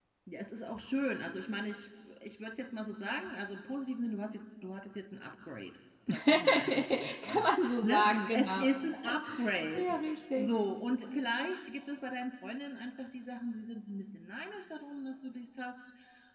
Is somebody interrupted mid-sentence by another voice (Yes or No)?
Yes